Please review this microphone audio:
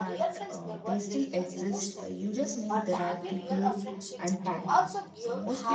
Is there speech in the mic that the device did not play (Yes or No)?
Yes